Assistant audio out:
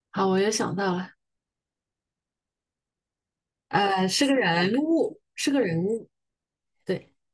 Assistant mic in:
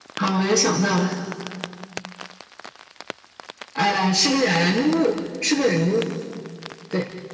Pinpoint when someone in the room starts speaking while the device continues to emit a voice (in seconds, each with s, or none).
none